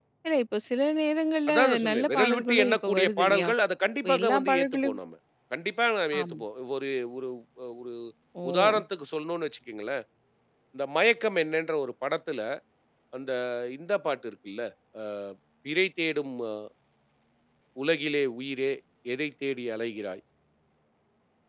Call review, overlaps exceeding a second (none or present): present